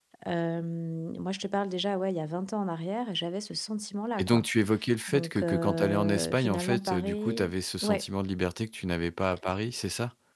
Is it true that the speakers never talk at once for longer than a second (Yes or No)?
No